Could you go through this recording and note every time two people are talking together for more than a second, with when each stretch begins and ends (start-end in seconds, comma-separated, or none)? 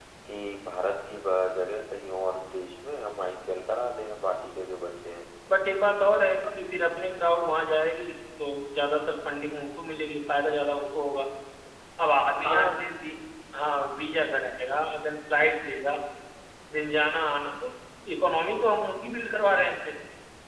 none